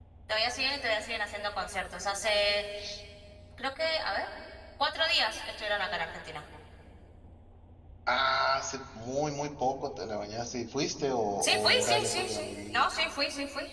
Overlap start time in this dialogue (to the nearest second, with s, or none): 11 s